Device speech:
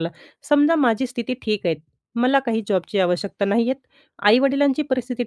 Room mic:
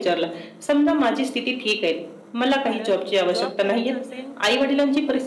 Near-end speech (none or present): present